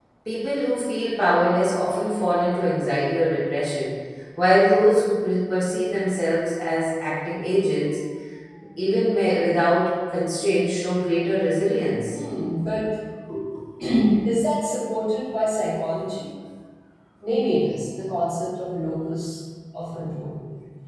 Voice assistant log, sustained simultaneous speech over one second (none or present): none